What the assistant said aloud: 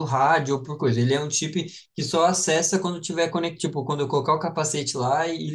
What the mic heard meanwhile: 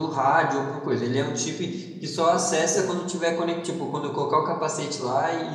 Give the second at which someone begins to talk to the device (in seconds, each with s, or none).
2.3 s